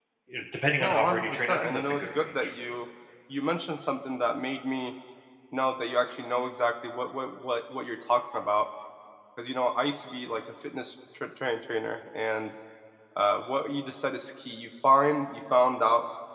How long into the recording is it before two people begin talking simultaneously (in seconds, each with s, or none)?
0.8 s